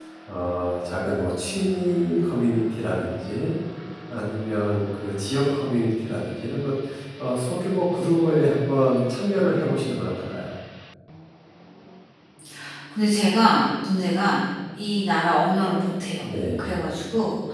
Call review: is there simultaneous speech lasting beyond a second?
No

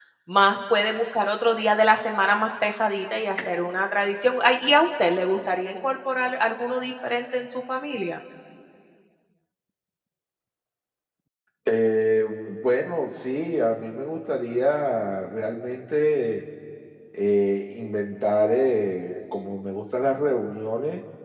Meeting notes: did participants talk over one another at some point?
No

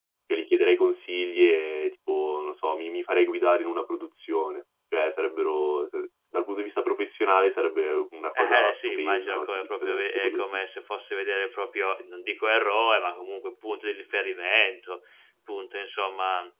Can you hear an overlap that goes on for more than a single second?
Yes, from 8.3 s

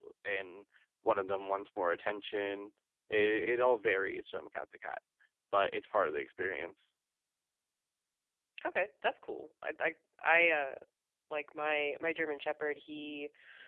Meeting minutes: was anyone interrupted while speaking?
No

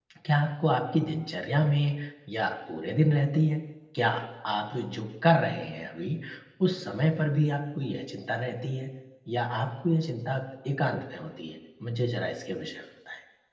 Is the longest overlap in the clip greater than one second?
No

